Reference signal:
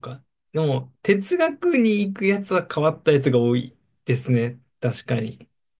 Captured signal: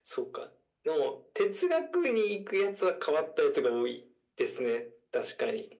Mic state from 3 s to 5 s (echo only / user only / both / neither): echo only